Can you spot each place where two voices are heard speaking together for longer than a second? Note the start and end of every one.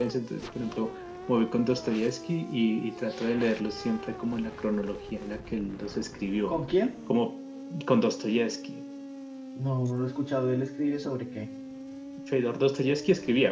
none

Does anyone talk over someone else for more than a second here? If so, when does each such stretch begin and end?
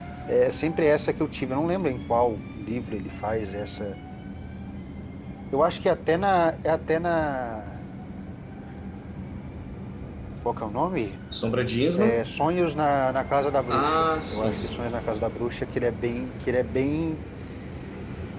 13.7-14.9

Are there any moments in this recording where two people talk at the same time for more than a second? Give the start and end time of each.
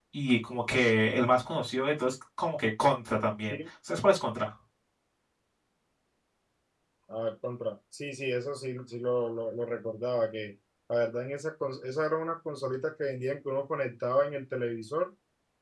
none

